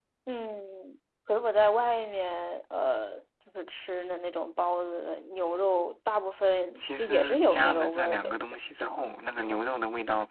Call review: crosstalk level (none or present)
present